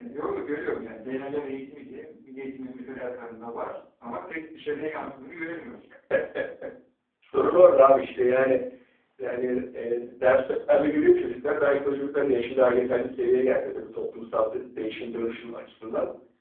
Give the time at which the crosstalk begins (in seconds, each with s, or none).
none